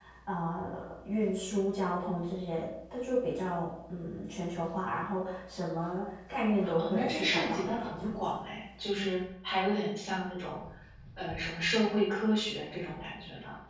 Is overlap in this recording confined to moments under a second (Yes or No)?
No